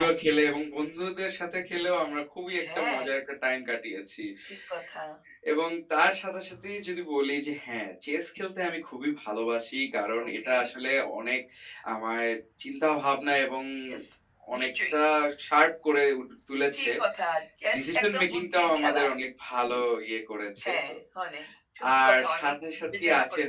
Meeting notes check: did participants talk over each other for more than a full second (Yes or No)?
Yes